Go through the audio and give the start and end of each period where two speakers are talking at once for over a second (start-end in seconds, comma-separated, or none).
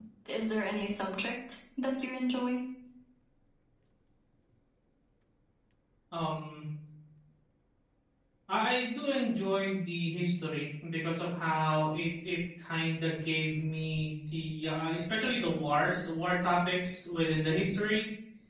none